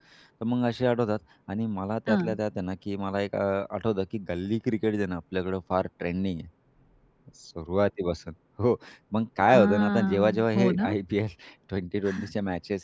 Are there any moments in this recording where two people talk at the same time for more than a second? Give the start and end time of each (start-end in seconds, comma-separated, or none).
9.5-10.9